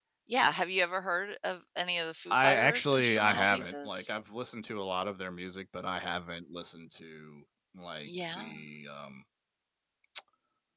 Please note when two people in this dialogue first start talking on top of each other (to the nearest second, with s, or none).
2 s